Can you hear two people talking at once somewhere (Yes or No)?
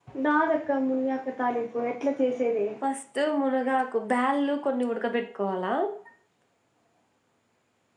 No